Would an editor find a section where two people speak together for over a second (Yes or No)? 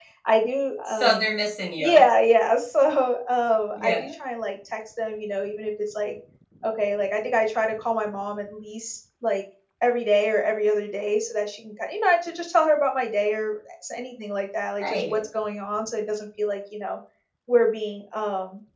No